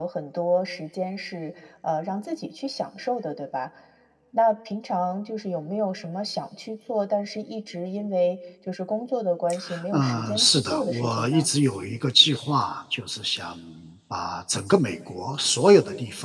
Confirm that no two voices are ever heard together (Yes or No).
No